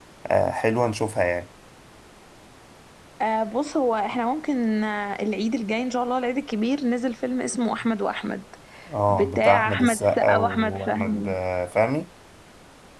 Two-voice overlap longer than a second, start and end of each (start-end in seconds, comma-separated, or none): 9.1-11.4